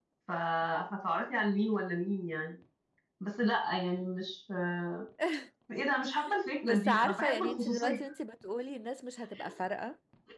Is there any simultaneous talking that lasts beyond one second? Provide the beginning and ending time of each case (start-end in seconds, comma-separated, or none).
6.6-8.0